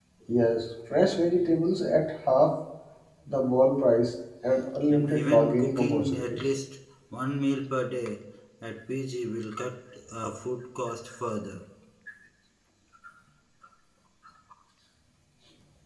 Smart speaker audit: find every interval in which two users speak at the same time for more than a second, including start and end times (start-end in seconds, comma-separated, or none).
4.9-6.5